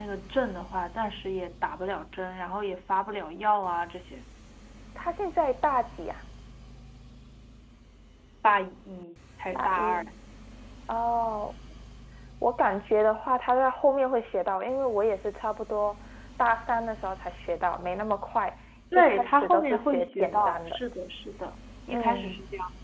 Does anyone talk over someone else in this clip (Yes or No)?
Yes